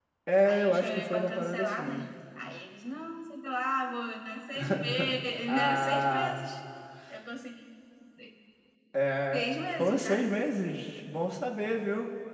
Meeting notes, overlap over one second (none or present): present